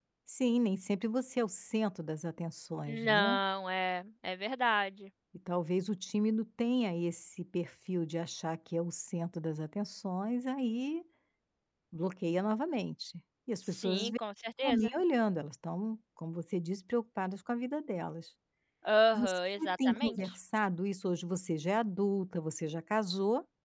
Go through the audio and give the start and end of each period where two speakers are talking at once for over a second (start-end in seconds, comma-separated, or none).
19.1-20.3